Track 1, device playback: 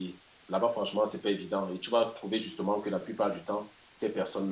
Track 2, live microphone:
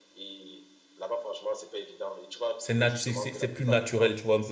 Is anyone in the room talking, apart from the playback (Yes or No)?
Yes